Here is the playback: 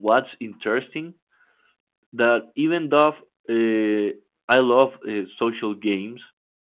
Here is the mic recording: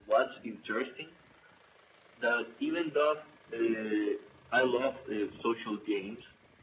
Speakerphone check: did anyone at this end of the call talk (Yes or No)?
No